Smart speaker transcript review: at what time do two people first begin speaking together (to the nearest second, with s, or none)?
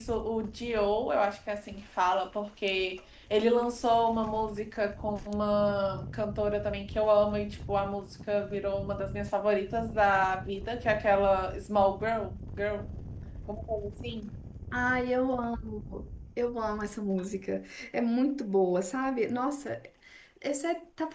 none